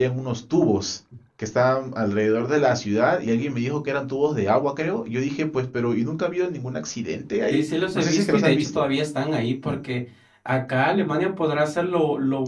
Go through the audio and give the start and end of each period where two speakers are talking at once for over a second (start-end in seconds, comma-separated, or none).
7.5-8.8